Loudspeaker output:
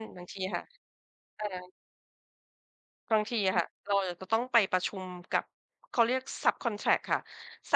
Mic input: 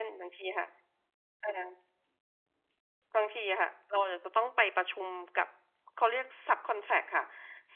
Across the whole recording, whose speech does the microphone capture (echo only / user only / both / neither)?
echo only